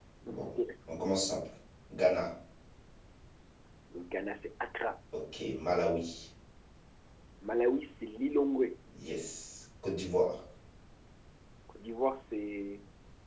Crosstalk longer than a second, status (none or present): none